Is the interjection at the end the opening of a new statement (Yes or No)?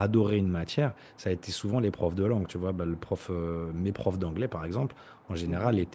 No